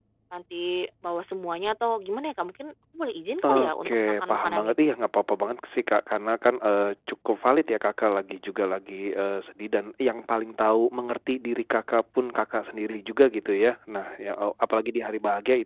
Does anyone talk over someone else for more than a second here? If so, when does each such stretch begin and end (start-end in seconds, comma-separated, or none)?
3.4-4.8